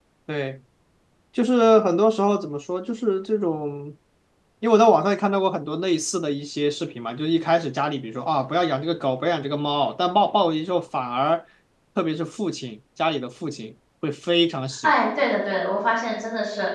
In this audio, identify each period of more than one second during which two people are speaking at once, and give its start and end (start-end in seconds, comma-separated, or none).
none